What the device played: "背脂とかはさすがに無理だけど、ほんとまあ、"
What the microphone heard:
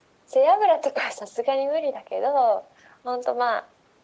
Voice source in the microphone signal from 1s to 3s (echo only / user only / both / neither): echo only